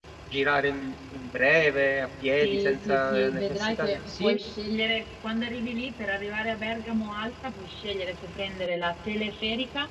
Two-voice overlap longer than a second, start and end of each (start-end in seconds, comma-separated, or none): 2.4-4.4